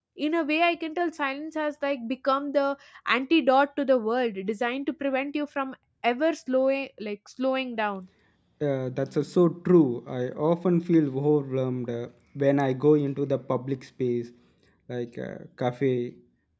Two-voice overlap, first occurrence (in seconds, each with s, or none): none